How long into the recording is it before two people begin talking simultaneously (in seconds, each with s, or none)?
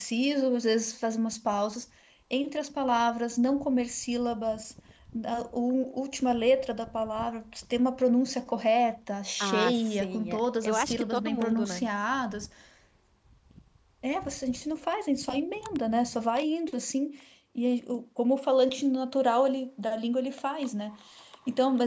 9.4 s